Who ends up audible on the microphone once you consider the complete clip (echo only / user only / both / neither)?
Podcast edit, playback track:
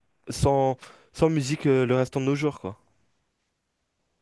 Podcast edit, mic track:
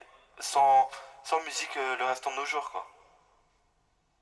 echo only